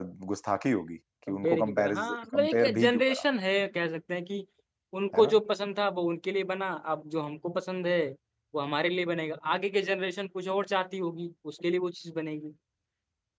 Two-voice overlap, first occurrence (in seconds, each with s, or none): 1.3 s